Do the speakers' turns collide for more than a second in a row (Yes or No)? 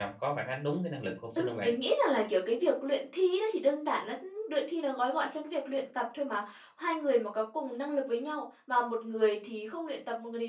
No